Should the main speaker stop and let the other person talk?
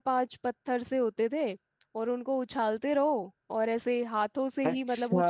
Yes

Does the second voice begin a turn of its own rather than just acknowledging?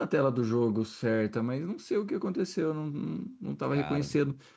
No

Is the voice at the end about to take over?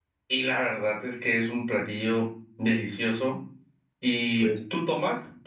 No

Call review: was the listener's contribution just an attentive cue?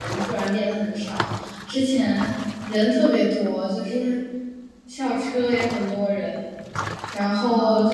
Yes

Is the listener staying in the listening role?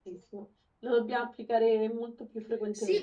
No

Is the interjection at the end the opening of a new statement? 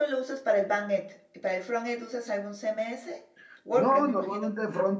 Yes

